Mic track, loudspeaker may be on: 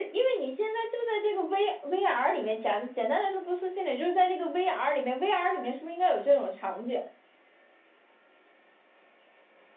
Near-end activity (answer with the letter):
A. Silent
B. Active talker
A